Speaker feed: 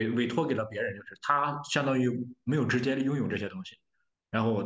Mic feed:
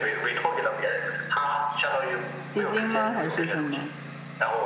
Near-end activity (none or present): present